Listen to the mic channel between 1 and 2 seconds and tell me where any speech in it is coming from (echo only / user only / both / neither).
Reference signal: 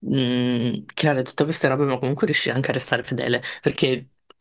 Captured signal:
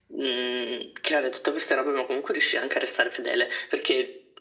echo only